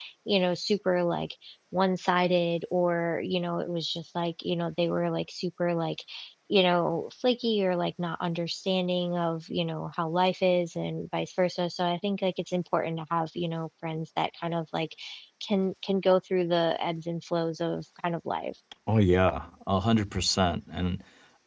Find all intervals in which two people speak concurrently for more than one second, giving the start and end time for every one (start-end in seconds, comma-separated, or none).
none